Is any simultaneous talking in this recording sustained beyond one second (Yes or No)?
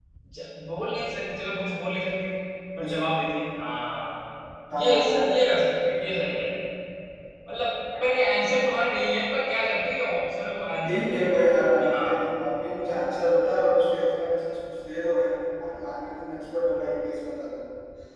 Yes